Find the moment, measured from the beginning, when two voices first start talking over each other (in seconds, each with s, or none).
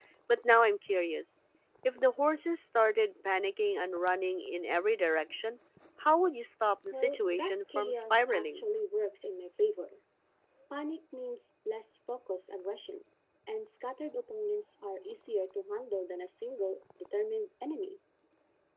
6.9 s